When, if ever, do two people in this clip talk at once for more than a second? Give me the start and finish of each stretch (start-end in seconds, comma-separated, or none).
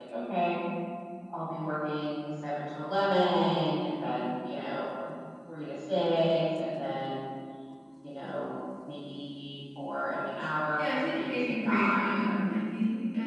10.8-12.5